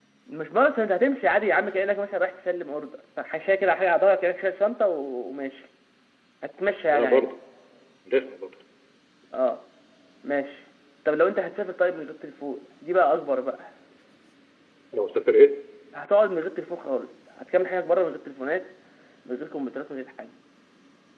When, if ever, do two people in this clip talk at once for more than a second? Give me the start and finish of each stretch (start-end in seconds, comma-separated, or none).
none